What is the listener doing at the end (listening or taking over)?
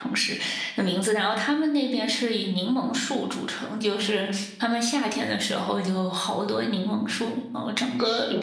listening